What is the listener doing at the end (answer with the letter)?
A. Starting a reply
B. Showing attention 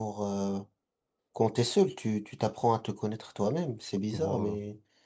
B